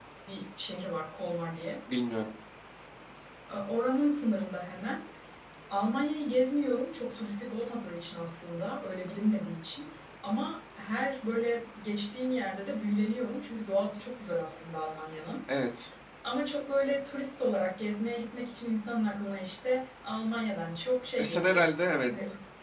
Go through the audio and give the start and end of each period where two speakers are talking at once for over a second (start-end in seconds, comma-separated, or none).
none